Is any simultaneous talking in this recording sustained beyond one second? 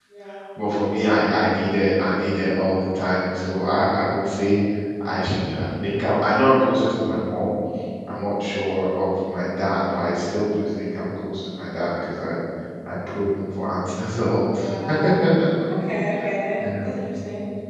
No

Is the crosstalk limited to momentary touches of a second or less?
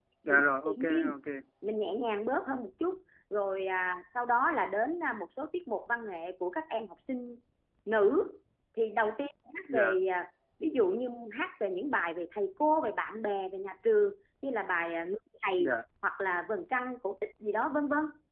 Yes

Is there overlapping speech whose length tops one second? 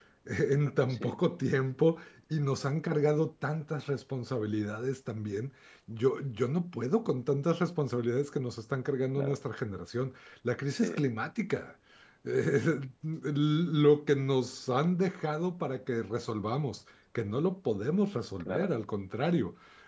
No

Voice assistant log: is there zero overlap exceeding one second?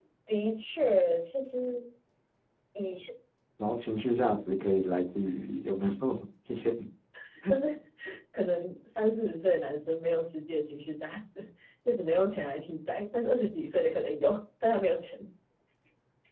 Yes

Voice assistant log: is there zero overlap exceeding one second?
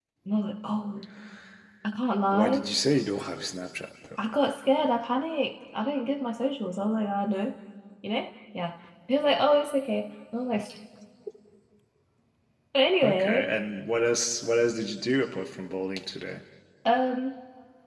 Yes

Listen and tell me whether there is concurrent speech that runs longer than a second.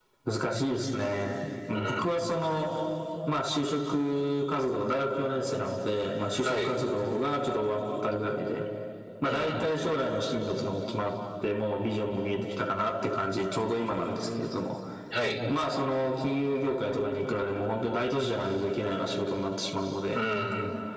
No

